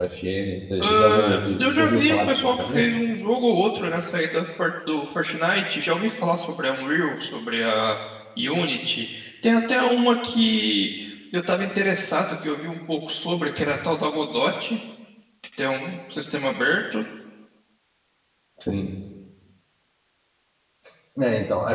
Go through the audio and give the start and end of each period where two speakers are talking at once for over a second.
0.8-2.8

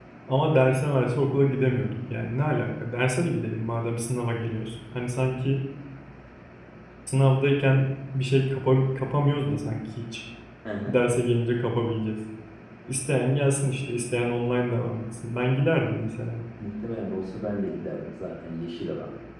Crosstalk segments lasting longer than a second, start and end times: none

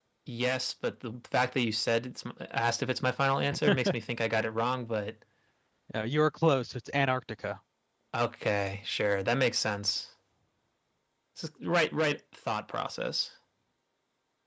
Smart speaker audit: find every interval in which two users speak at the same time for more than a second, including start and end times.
none

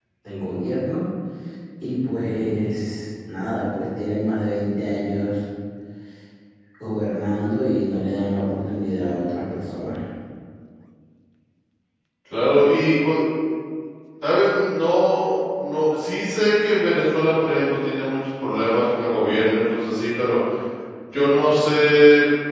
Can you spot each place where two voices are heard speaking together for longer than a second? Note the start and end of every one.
none

